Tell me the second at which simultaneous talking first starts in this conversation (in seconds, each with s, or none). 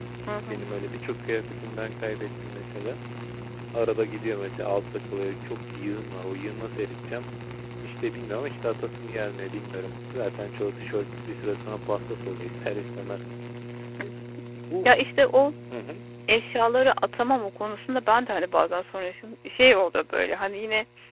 none